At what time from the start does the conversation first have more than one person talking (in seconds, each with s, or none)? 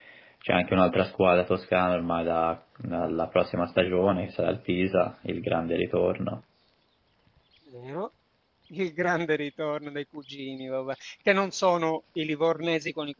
none